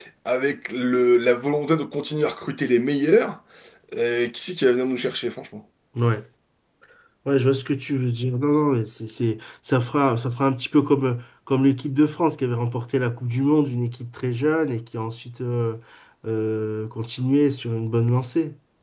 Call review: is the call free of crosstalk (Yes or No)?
Yes